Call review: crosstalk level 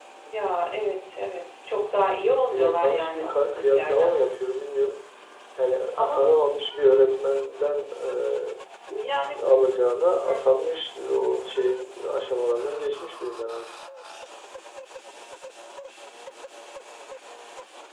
present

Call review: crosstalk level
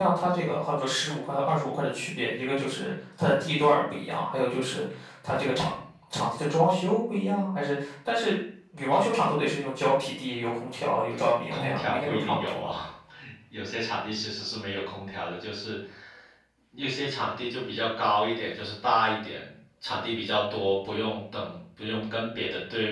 present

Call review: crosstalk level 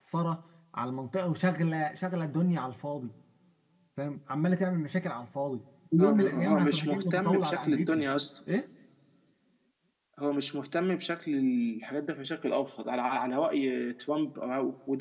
present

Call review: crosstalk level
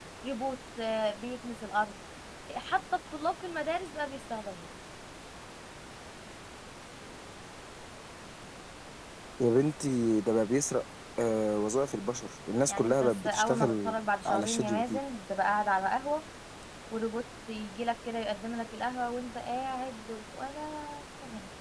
present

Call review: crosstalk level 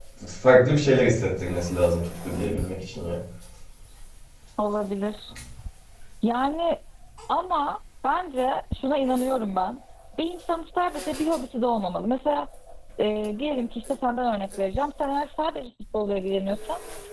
none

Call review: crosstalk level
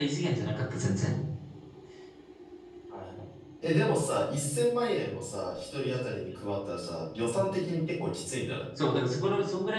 none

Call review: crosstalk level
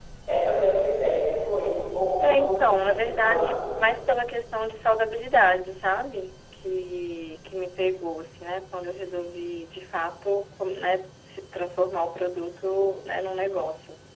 present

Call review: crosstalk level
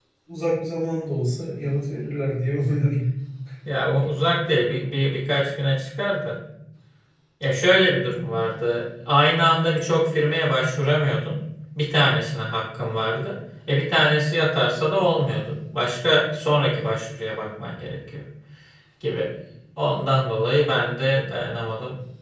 none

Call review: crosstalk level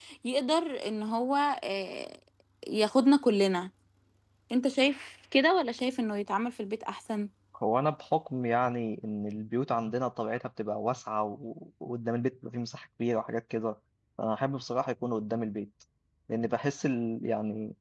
none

